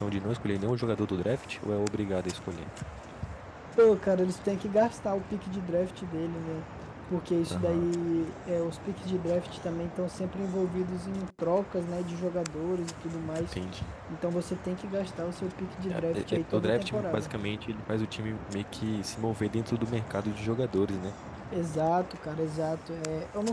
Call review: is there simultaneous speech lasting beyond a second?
Yes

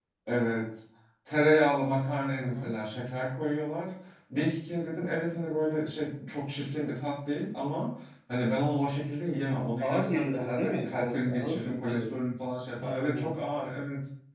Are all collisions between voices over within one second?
No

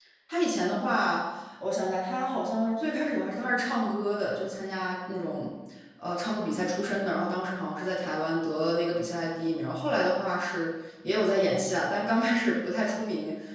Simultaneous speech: No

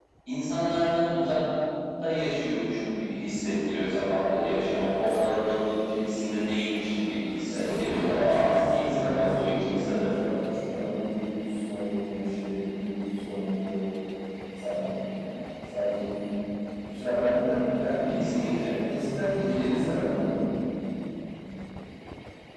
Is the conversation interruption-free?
No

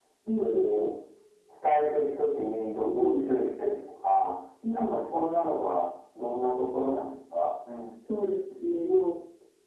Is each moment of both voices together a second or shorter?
Yes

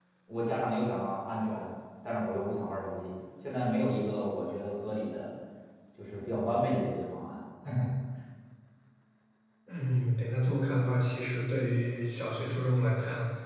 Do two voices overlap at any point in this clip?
No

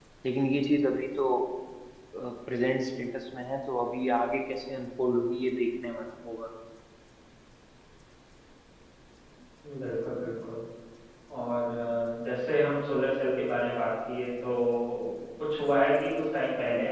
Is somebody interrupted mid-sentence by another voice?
No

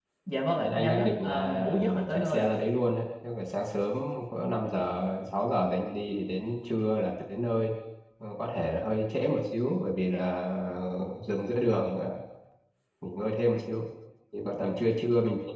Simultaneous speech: Yes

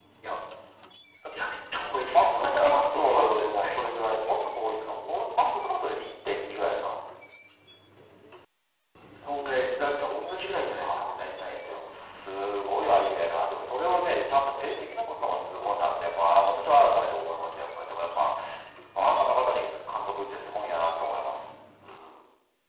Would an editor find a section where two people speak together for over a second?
Yes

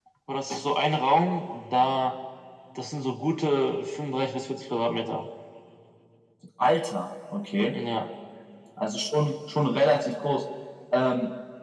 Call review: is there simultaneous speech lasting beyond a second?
No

